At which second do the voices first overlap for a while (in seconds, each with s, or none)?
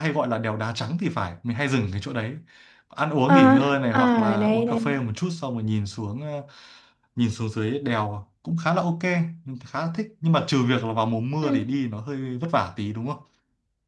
3.3 s